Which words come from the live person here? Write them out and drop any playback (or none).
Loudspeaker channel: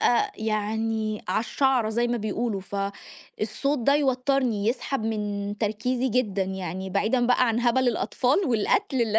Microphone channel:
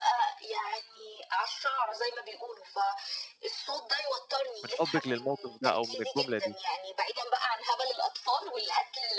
من حُبِّك للموقف ده أو من الجملة دي.